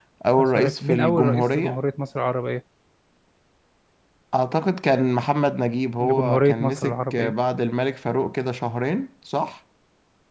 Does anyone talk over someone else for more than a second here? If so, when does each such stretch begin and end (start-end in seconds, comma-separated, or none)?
0.6-1.8, 6.0-7.3